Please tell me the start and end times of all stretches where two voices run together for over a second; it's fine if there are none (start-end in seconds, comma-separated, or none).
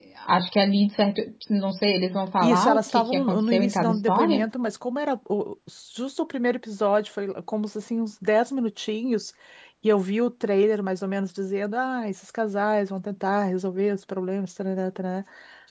2.4-4.5